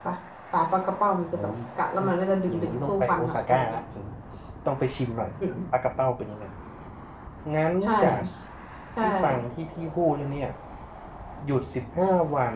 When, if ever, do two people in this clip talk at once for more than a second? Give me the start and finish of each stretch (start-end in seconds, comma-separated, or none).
2.5-3.8